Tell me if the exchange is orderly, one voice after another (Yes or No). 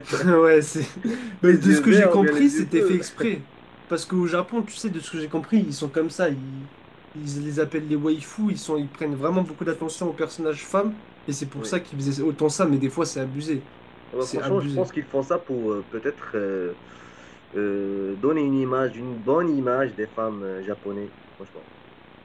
No